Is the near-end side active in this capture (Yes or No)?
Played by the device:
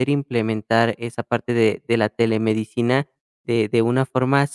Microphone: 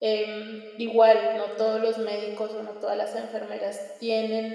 Yes